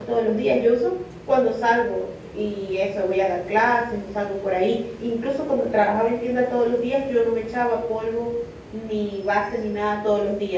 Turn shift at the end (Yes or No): No